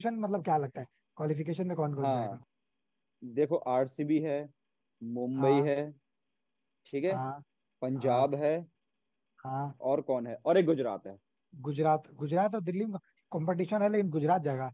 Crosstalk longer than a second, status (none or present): none